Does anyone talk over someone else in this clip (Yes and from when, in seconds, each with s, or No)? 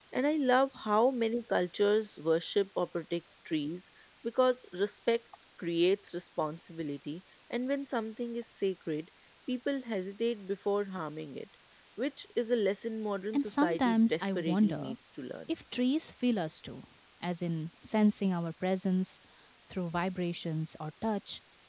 Yes, from 13.3 s